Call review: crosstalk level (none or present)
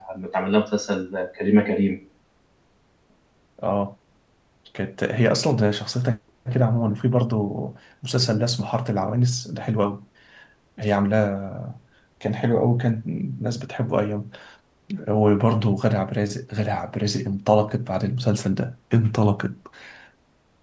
none